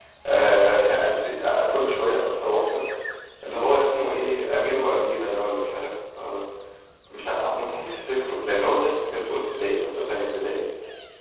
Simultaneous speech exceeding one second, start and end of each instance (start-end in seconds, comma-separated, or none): none